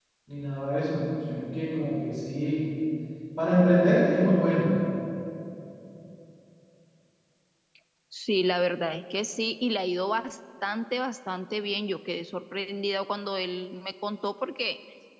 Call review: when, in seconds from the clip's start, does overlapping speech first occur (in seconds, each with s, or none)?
none